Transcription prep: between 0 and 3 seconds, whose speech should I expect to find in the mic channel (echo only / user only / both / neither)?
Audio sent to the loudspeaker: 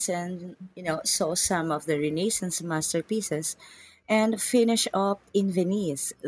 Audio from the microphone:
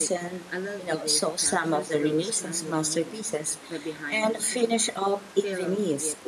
both